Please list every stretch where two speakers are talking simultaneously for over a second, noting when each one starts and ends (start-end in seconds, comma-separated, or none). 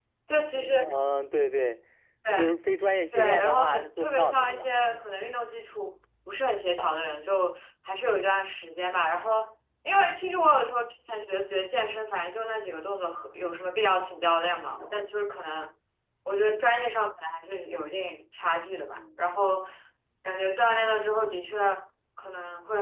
3.1-5.0